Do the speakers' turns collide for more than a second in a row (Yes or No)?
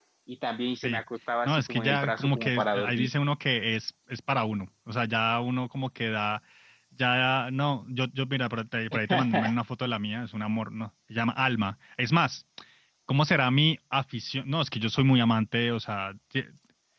Yes